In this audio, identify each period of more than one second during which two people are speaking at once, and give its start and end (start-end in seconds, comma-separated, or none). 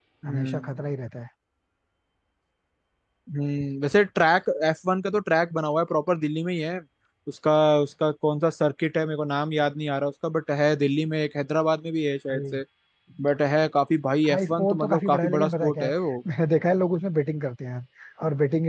14.3-15.9